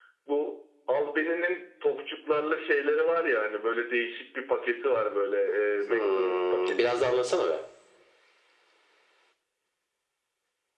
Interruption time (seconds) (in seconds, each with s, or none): 5.9 s